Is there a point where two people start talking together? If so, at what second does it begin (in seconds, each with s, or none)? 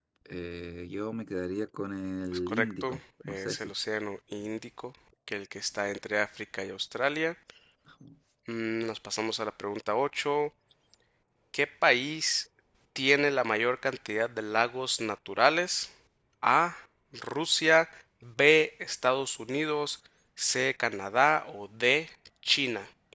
2.5 s